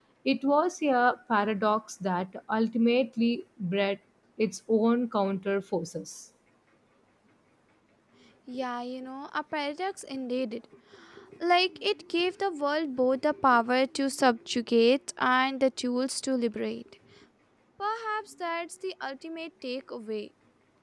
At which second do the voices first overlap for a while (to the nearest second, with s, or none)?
none